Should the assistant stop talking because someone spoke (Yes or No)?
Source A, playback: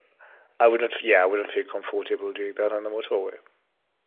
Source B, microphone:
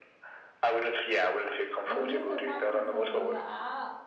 Yes